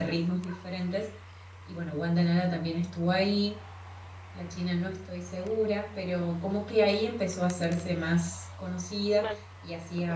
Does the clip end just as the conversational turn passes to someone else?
No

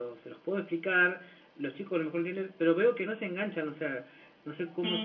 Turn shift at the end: Yes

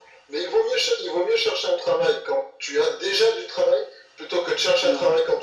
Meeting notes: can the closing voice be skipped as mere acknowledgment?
Yes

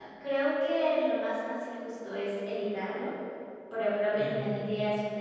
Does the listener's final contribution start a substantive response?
No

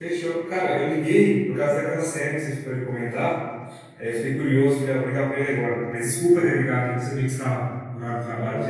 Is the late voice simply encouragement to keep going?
No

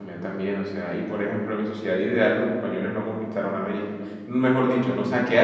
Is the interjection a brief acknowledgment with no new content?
Yes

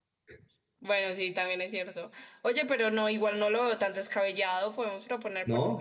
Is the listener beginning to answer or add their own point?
Yes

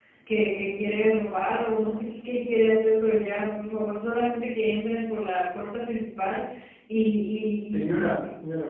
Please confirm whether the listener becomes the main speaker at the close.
Yes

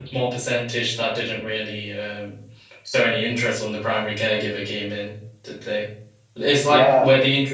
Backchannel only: Yes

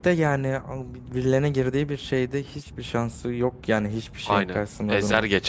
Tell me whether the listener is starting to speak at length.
Yes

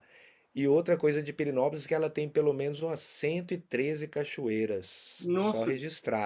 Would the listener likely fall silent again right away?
Yes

